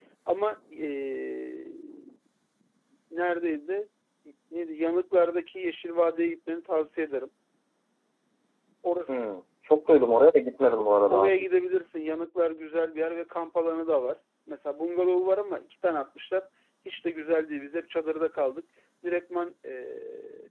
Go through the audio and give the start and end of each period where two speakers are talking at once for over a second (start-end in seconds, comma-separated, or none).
none